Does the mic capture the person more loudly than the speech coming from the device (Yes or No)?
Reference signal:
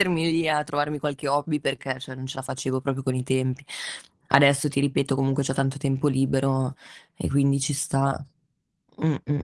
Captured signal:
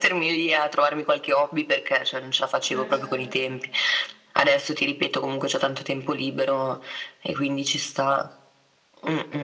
No